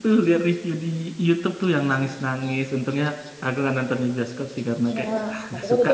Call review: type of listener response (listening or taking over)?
taking over